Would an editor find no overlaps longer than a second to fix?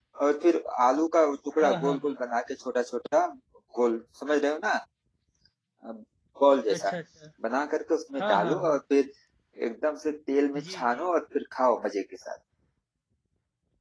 Yes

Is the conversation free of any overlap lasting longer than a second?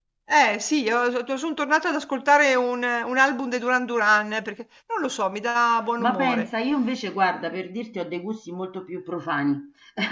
Yes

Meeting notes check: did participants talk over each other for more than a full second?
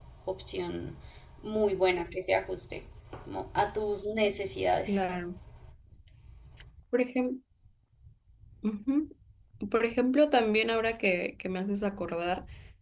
No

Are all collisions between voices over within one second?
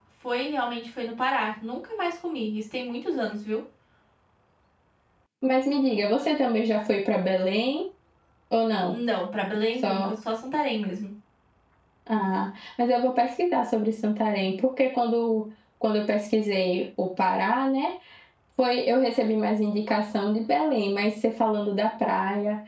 Yes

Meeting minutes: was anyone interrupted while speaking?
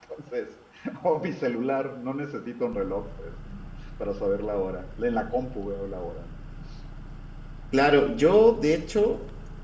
No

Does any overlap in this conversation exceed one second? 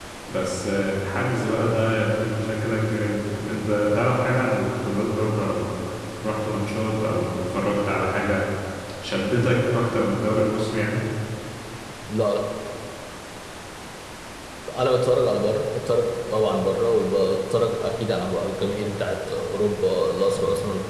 No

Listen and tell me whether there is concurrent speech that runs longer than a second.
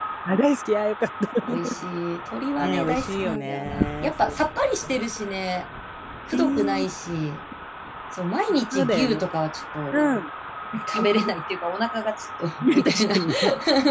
Yes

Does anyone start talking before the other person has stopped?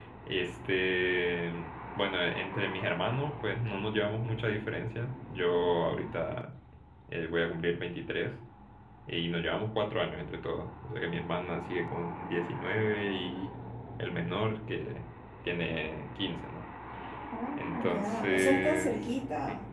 Yes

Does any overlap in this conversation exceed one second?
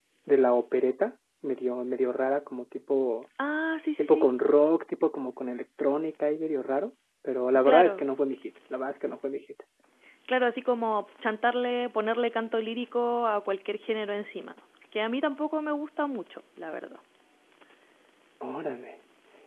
No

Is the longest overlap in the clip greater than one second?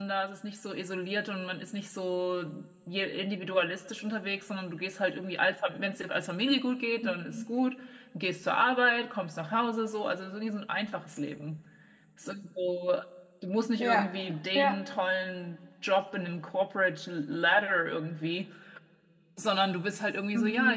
No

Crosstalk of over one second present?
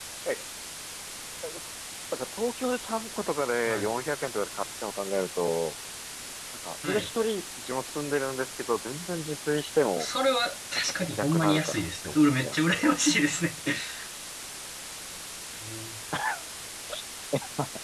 Yes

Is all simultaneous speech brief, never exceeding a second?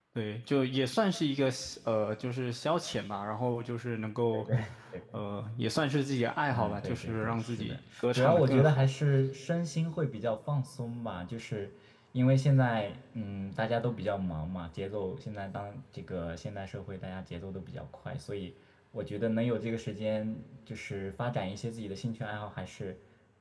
No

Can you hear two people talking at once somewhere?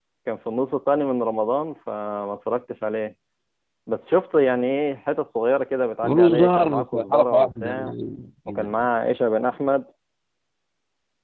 Yes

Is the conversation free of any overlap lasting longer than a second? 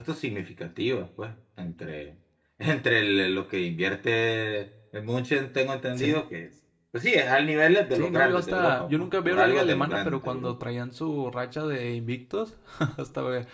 No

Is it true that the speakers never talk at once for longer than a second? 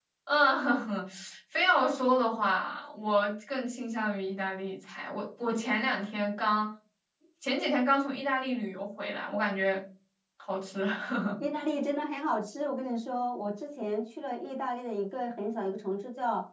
Yes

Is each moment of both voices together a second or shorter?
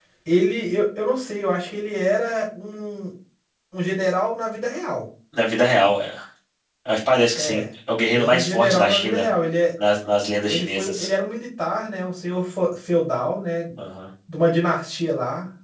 No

